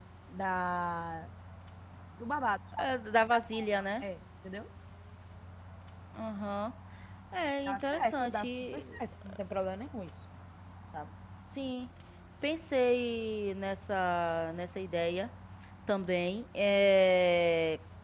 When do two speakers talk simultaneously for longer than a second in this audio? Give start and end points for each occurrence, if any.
7.7-8.9

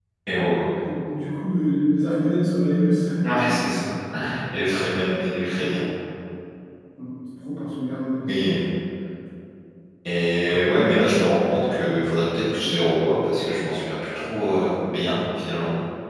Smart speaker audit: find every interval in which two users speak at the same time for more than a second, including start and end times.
none

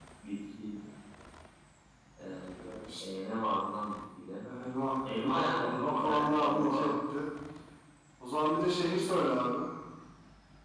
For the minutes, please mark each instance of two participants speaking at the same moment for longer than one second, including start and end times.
5.0-6.9

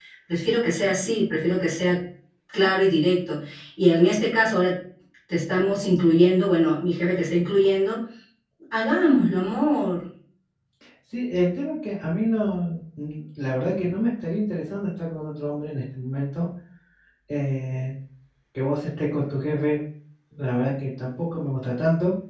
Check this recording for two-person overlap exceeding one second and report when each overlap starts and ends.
none

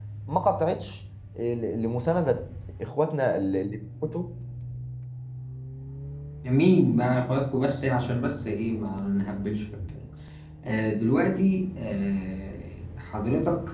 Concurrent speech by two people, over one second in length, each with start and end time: none

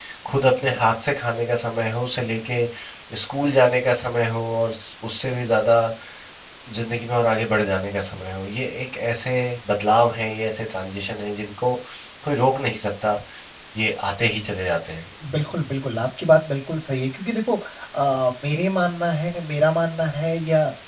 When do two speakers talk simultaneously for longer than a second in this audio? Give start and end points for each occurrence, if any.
none

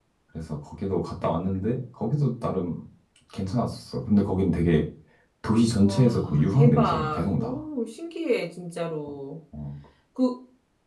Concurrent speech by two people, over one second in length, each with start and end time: 5.8-7.6

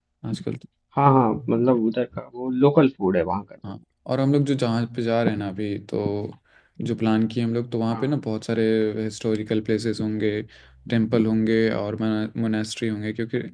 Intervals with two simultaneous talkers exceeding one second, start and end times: none

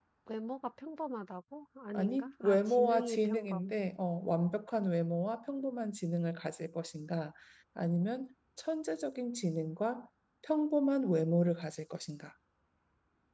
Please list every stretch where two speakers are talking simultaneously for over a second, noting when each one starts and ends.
1.9-3.7

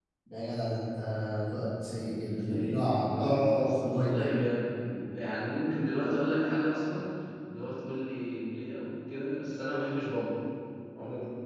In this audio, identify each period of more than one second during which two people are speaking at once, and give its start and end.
3.1-4.4

